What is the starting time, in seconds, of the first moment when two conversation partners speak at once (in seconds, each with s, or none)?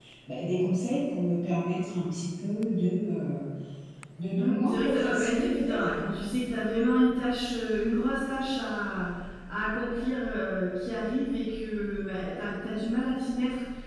4.4 s